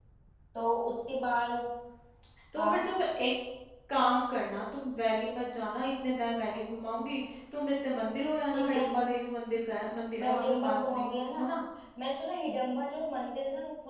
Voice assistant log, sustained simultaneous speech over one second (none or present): present